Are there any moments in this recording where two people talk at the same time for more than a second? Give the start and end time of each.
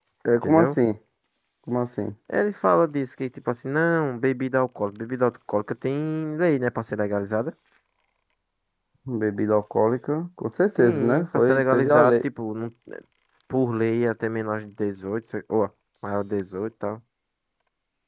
10.8-12.2

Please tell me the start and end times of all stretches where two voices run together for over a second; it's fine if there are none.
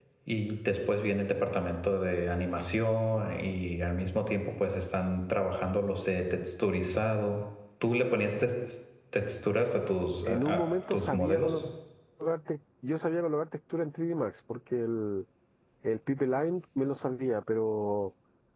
10.2-11.6

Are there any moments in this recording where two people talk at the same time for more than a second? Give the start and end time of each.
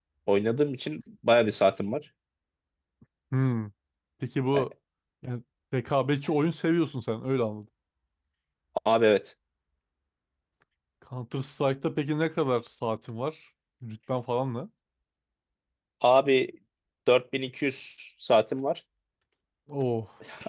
none

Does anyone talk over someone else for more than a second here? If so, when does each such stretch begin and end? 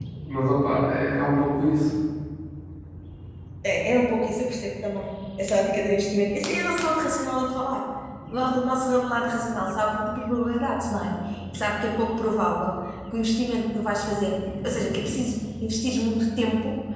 none

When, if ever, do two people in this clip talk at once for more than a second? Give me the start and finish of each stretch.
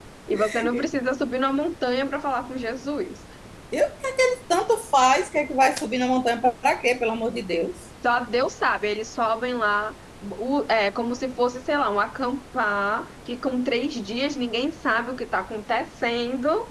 none

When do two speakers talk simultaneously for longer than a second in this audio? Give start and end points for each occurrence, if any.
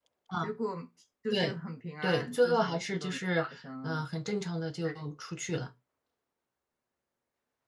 2.0-3.4

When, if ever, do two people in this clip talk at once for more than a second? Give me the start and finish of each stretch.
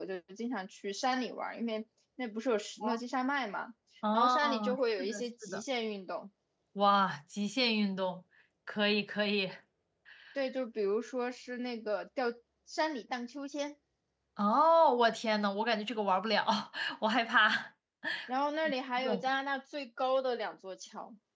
4.1-5.6

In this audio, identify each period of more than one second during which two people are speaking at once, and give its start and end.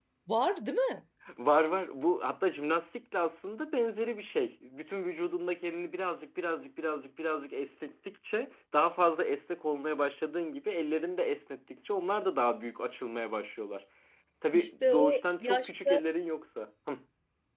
14.5-16.0

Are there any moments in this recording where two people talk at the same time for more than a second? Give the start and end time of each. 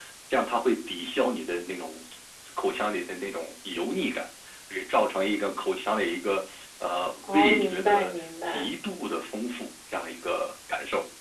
7.3-8.7

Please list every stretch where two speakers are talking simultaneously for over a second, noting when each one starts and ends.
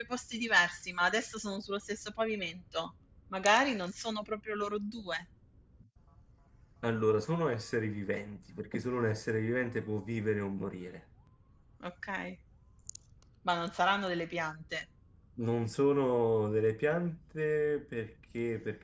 none

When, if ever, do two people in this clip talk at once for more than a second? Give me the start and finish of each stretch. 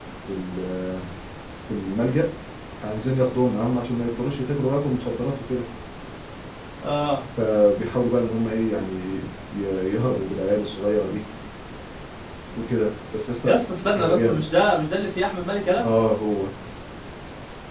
none

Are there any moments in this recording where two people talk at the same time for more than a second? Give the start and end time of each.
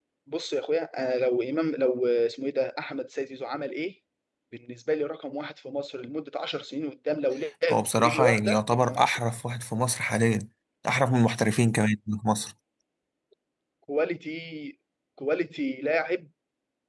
7.7-9.2

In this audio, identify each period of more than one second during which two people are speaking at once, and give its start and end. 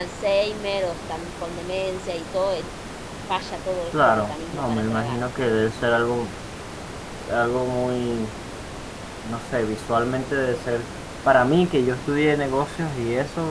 3.9-5.2

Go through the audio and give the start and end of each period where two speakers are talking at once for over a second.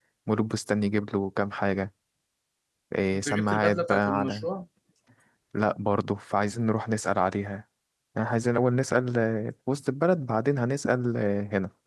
3.1-4.5

